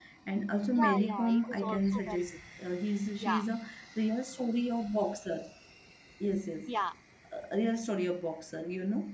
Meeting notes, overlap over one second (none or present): present